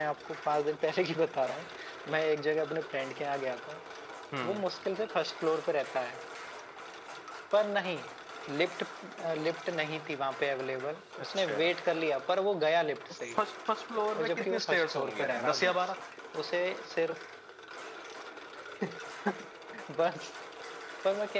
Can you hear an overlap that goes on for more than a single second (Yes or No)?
Yes